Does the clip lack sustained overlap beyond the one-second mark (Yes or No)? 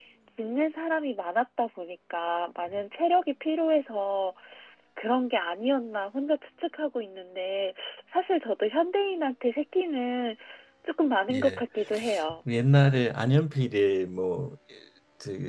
Yes